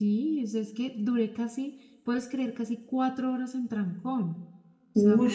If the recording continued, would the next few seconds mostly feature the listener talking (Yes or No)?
No